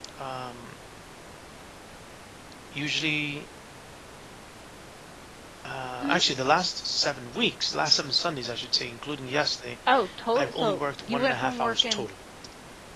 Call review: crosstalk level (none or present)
present